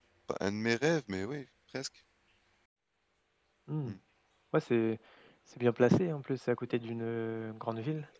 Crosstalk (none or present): none